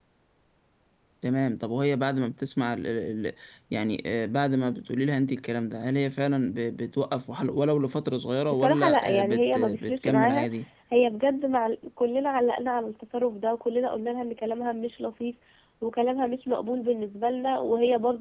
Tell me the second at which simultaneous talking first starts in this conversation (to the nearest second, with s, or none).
9 s